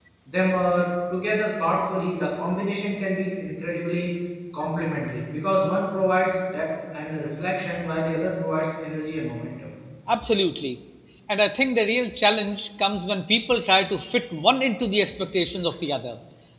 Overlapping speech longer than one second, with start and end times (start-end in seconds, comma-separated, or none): none